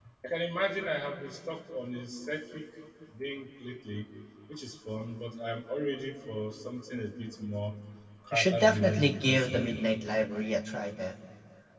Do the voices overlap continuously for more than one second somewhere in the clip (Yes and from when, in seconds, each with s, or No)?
Yes, from 8.3 s